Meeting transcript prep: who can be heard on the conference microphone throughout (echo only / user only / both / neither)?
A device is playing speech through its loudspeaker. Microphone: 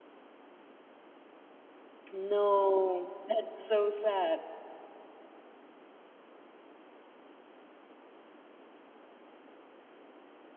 user only